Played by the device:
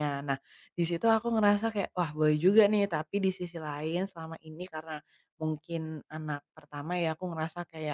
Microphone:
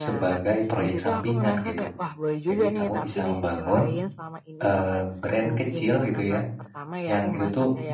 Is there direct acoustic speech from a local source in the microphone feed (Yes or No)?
Yes